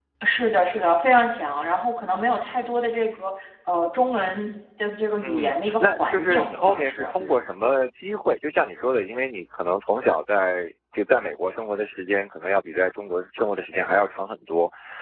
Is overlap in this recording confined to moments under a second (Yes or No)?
No